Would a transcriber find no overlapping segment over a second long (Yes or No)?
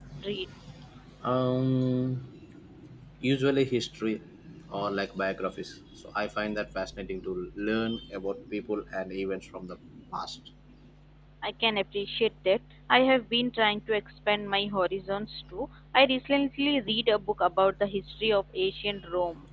Yes